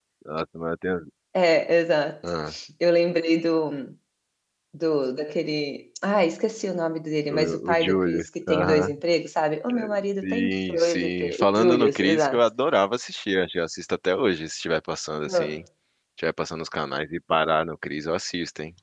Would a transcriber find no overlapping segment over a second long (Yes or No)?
No